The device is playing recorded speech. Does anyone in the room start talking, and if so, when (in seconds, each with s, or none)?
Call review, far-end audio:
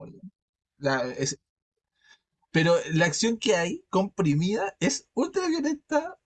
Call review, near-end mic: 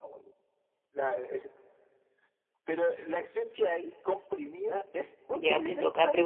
5.3 s